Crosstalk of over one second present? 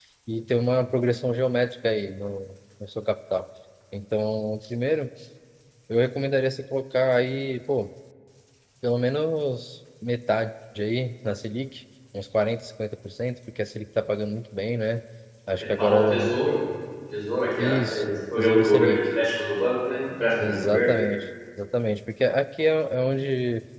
Yes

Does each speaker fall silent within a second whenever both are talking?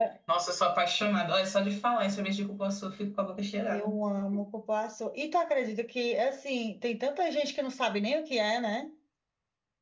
Yes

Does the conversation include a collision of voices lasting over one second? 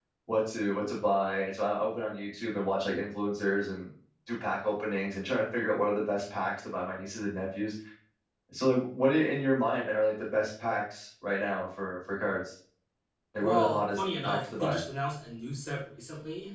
Yes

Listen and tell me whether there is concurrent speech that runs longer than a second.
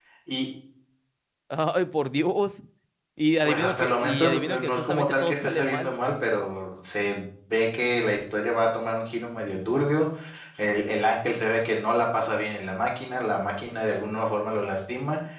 Yes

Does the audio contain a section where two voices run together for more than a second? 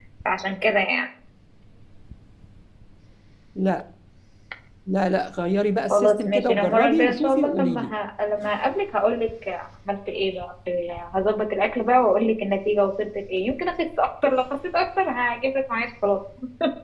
Yes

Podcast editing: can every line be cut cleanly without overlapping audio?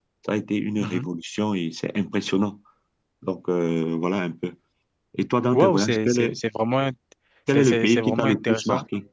No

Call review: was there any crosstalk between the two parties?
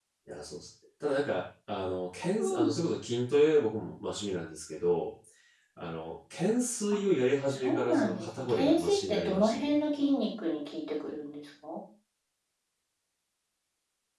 Yes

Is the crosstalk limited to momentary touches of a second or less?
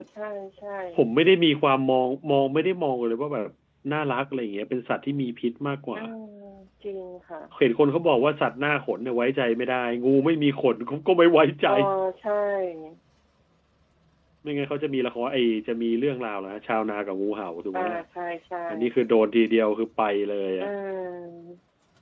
Yes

